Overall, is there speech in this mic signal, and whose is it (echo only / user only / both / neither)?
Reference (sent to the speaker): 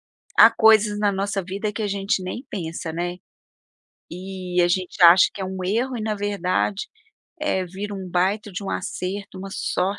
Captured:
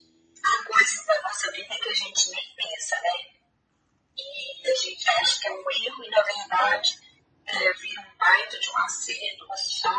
echo only